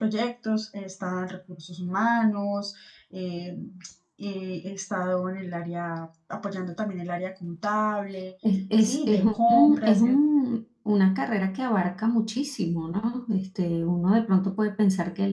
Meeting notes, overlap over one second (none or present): present